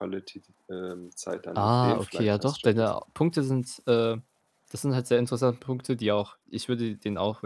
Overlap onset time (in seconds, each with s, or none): 1.6 s